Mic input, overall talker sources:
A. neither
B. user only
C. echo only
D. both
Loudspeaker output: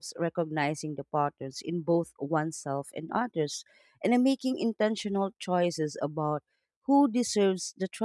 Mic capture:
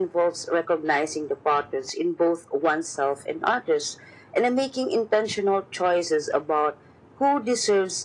C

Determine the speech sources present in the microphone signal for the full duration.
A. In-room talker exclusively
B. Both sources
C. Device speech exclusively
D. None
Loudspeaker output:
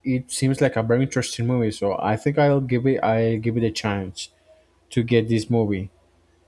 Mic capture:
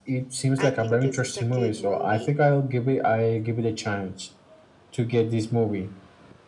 B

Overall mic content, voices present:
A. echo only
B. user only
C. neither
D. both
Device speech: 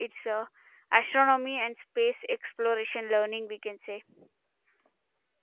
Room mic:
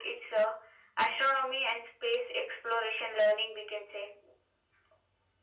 A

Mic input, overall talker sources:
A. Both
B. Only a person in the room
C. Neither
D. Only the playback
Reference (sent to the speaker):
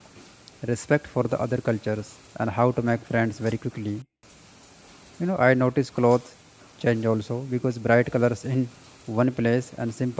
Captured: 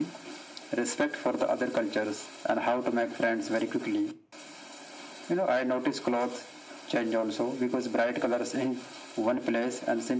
D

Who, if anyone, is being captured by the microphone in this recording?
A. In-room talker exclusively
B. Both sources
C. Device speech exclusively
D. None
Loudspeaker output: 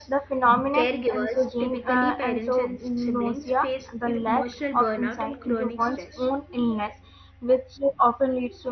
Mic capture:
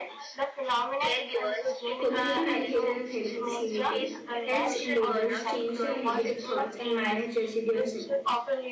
B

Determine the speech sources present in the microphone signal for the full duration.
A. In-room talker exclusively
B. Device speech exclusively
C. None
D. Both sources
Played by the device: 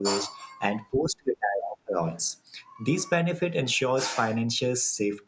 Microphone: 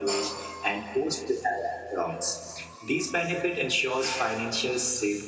B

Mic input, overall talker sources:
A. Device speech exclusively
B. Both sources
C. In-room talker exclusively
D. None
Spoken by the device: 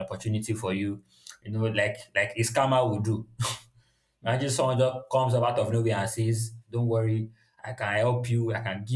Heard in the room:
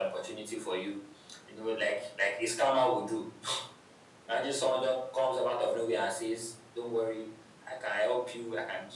A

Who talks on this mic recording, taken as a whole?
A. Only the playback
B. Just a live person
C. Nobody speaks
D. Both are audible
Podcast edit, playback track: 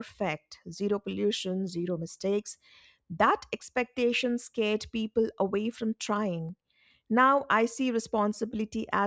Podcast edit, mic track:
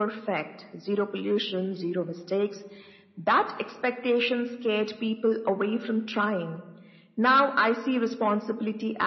A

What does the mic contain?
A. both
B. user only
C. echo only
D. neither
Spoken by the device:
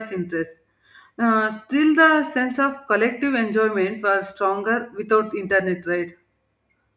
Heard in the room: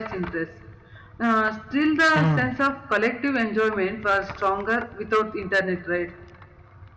A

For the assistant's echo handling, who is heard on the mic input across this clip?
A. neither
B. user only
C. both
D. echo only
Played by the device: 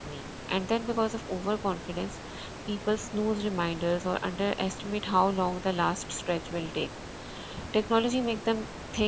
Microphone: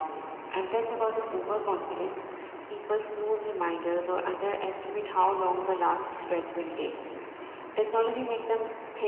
D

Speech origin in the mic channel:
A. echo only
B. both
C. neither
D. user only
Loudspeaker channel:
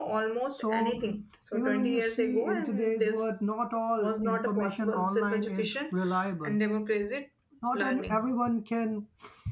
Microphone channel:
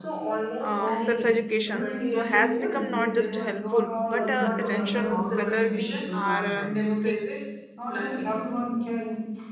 B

